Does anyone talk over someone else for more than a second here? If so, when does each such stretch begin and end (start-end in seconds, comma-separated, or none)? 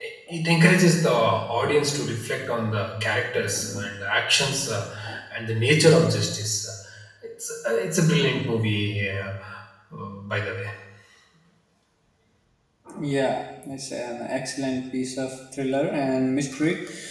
none